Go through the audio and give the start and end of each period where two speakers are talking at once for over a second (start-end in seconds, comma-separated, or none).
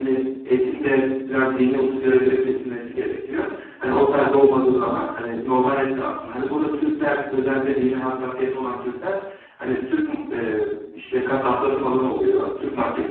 none